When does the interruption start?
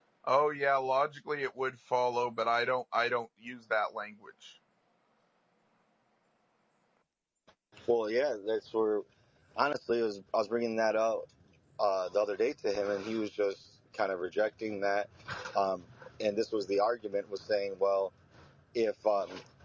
none

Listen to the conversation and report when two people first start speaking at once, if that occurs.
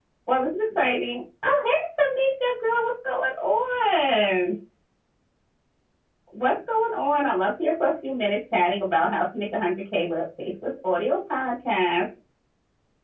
none

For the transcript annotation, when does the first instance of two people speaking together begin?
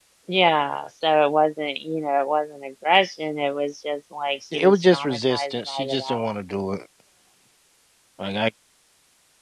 4.5 s

